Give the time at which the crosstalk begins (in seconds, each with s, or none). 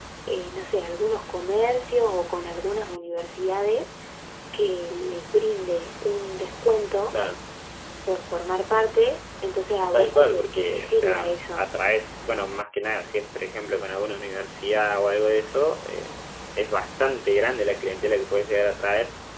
9.9 s